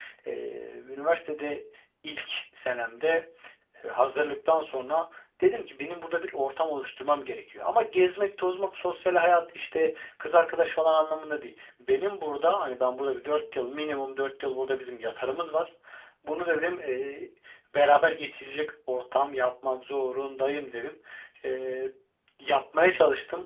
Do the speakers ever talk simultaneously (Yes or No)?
No